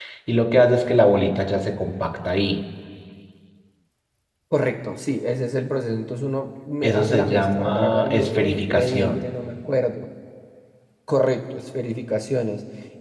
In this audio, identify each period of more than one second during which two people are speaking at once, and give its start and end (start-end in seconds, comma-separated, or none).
6.8-9.2